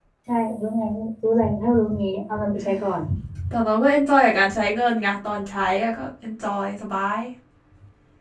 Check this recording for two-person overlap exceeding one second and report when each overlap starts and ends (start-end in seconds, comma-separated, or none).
none